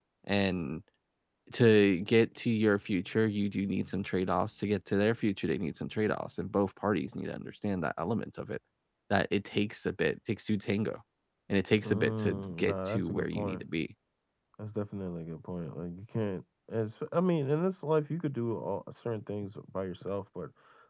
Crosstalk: present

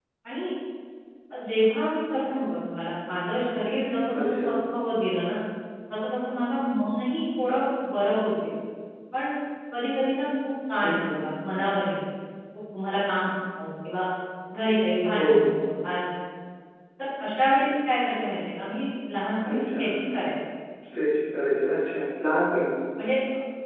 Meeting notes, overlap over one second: none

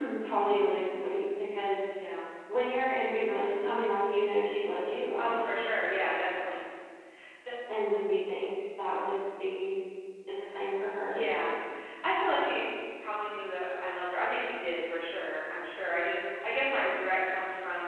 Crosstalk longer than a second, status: none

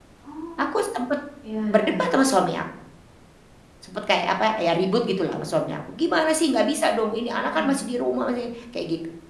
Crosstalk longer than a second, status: none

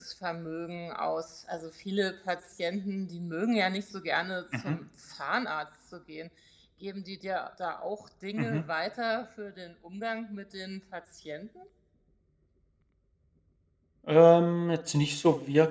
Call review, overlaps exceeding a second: none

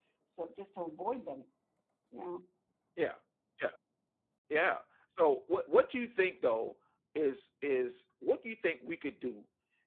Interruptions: none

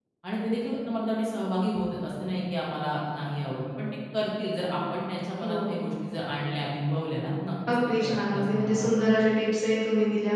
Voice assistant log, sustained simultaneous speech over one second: present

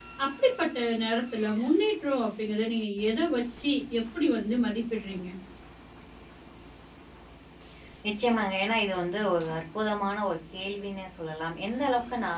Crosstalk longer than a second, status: none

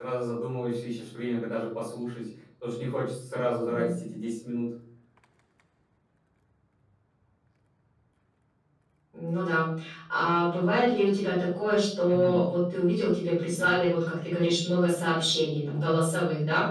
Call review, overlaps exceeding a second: none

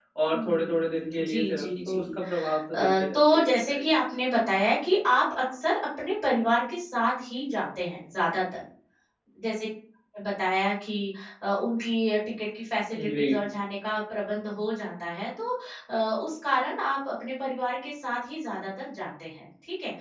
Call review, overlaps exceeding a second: present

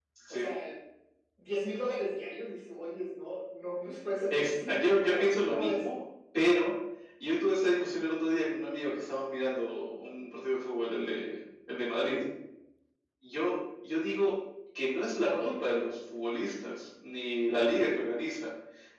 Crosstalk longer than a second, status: present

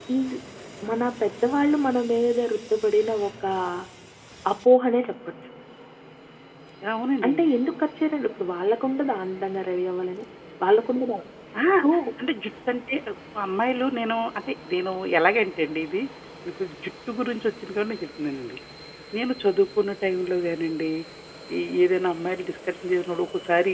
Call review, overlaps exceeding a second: none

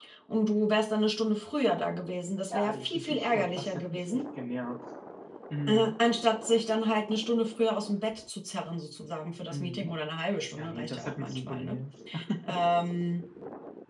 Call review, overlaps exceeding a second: present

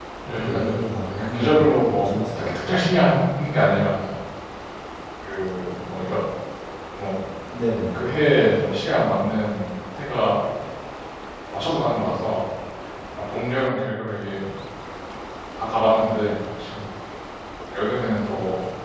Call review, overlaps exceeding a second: present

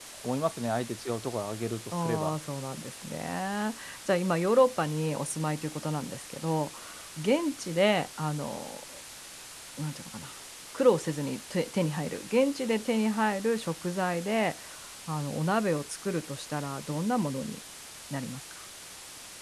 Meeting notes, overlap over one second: none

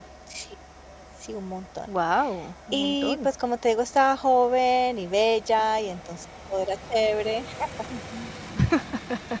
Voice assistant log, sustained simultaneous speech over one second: none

